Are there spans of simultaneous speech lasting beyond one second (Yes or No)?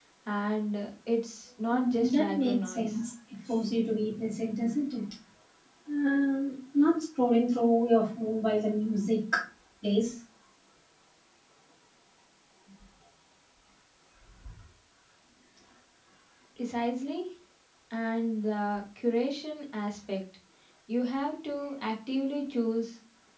Yes